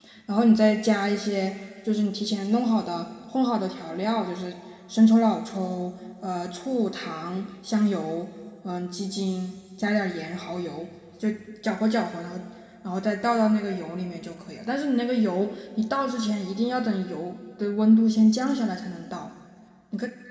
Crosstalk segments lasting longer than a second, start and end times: none

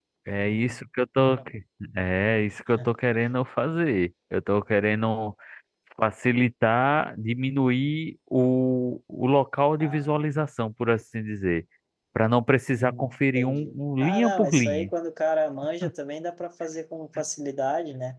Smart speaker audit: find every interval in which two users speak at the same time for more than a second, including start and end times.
12.8-14.9

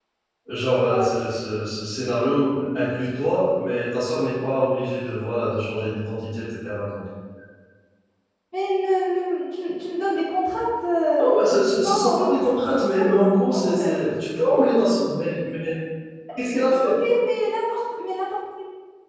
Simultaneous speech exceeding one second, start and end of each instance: 11.8-13.8

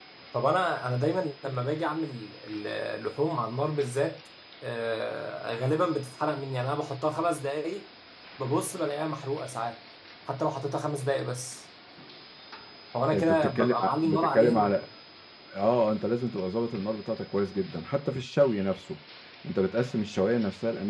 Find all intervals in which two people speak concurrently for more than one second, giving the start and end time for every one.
13.1-14.8

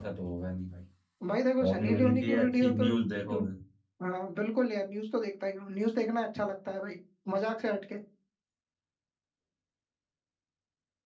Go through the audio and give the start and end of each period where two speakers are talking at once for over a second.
1.6-3.4

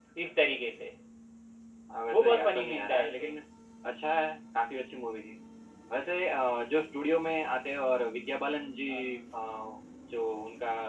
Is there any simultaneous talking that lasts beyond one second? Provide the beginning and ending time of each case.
2.1-3.3

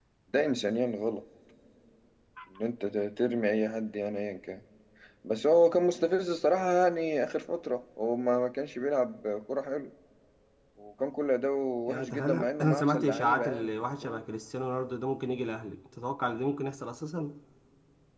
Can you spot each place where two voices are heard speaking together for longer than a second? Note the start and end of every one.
11.9-14.2

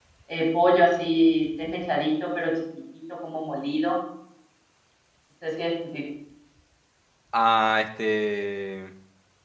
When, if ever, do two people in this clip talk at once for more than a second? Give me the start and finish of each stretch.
none

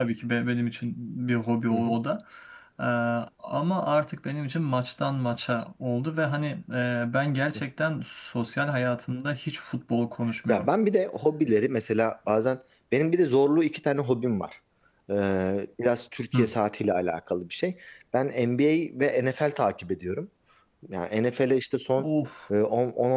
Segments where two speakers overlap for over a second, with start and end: none

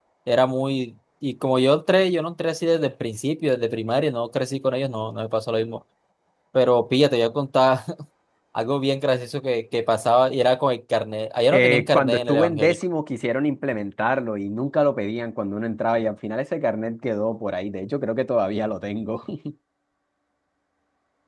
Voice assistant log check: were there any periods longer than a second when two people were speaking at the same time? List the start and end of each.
11.5-12.8

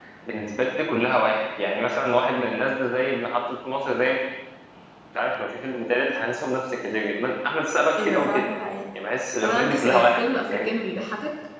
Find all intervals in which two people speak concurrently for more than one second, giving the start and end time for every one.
9.4-10.7

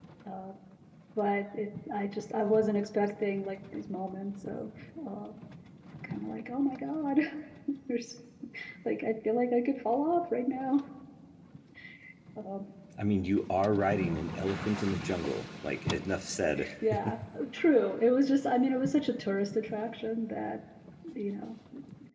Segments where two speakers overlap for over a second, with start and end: none

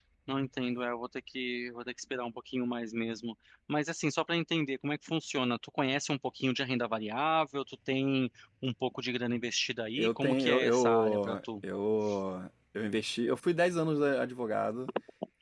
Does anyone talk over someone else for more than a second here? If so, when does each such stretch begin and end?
10.0-11.4

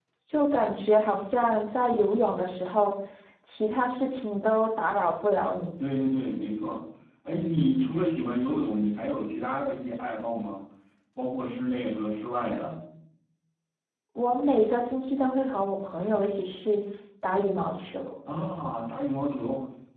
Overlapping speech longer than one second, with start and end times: none

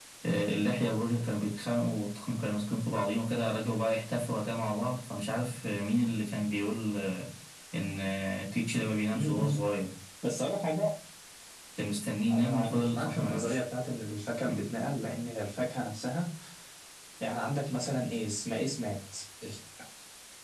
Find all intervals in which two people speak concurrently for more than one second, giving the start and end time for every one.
12.3-13.6

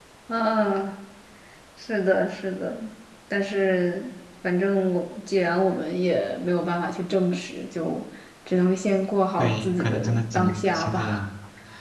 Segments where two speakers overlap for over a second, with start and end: 9.4-11.3

